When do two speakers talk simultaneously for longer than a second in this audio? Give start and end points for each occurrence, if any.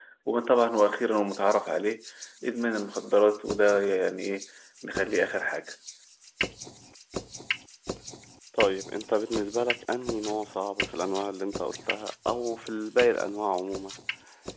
none

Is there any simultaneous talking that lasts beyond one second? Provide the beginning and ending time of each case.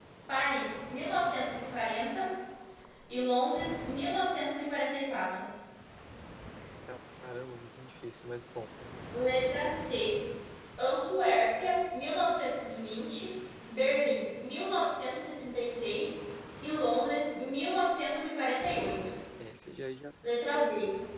none

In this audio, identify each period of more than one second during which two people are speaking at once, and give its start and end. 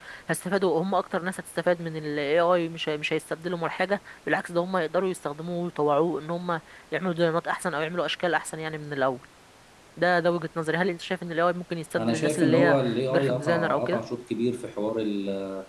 12.0-14.0

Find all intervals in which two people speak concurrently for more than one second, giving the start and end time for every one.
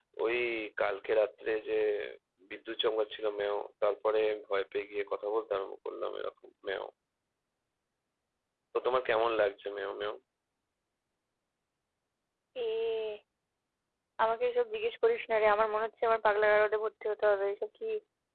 none

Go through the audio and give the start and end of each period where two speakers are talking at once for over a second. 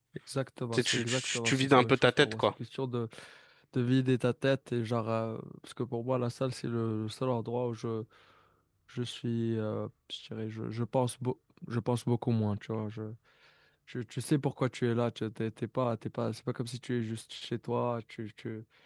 0.7-2.4

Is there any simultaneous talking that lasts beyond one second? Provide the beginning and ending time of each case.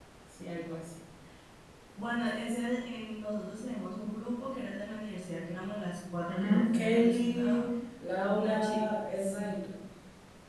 6.3-7.6, 8.2-9.6

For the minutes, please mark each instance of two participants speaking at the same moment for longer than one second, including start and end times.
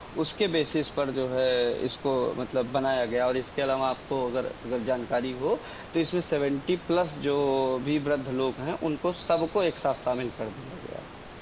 none

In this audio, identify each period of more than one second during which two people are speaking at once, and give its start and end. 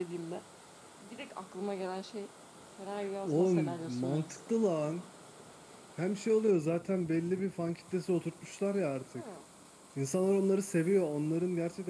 3.2-5.0

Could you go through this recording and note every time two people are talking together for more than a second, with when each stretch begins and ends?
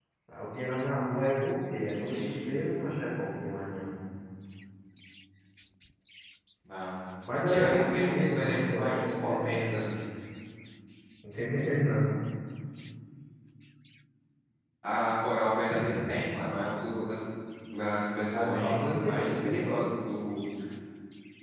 7.5-10.0, 18.3-19.7

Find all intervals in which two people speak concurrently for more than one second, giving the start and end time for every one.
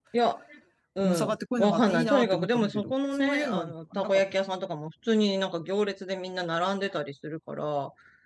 1.0-4.4

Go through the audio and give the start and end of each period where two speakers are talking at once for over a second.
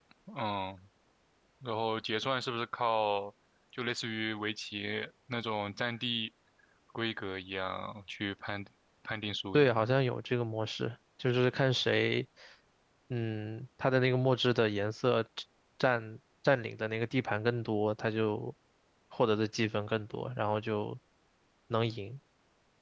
none

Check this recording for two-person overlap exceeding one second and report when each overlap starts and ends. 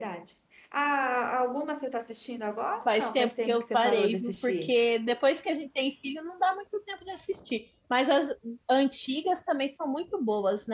2.9-4.7

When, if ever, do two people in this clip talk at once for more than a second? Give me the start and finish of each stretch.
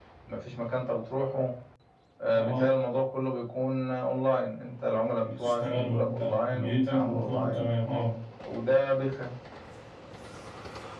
5.2-7.6

